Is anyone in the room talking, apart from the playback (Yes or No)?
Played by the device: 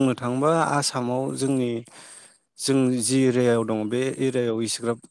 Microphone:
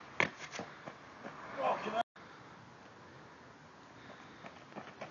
No